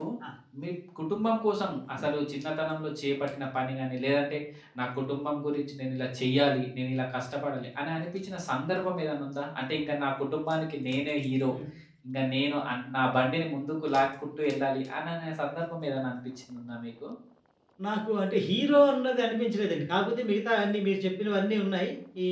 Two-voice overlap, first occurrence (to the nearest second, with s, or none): none